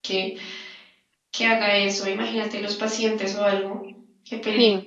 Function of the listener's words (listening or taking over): taking over